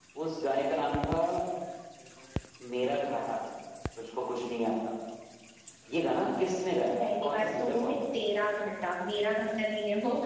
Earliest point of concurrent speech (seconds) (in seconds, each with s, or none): 7.0 s